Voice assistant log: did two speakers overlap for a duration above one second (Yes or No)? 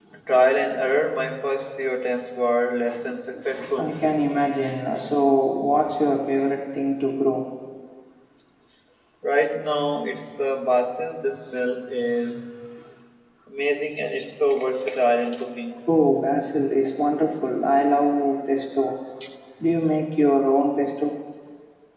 No